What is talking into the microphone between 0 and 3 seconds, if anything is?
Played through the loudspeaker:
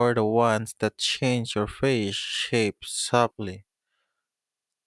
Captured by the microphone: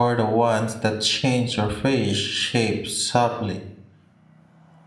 echo only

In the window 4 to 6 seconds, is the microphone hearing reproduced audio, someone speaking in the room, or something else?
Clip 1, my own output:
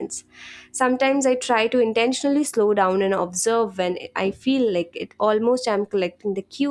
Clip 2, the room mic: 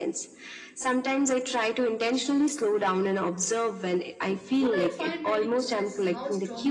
both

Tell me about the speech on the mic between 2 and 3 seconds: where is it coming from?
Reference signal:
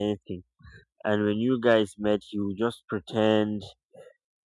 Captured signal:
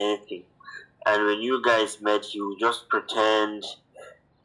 echo only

